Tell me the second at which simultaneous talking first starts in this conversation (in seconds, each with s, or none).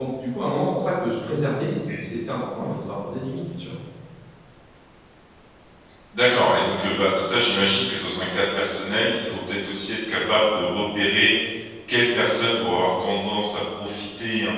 none